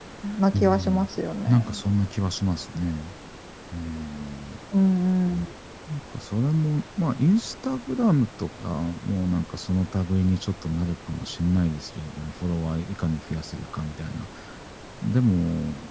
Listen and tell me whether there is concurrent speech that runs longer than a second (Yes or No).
No